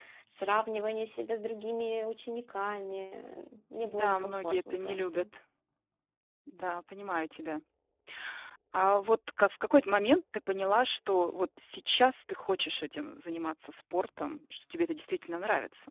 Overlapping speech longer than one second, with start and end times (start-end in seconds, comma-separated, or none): 3.8-5.2